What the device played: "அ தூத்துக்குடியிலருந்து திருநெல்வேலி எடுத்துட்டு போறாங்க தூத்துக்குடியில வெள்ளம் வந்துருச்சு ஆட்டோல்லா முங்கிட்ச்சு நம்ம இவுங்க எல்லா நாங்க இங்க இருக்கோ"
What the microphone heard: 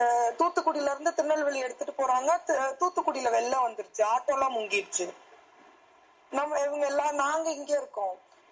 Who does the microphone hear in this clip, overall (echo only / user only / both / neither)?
echo only